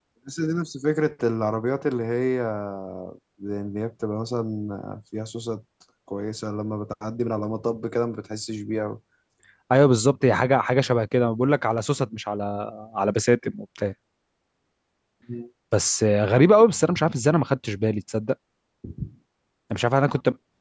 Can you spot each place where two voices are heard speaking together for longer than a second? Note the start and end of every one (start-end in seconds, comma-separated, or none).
none